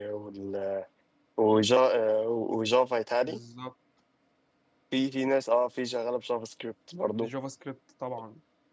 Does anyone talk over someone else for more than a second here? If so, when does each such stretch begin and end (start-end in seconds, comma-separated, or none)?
none